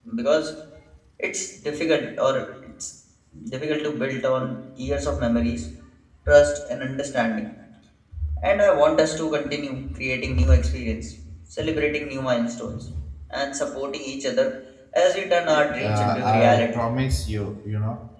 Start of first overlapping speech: 15.5 s

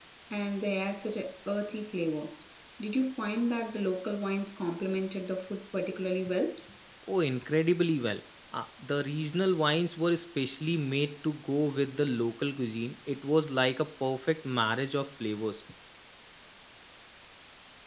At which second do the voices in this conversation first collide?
none

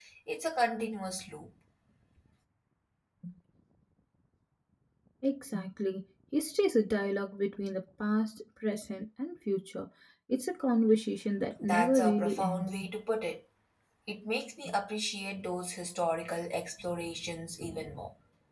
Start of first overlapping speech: 11.6 s

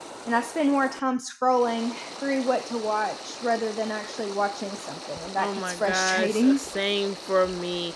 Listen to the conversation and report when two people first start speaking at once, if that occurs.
5.4 s

